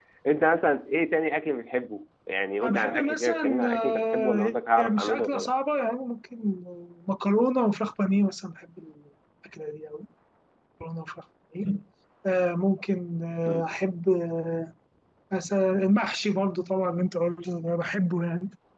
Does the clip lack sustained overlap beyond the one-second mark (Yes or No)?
No